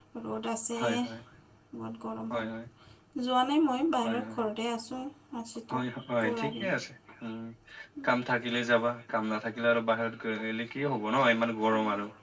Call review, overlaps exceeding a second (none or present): none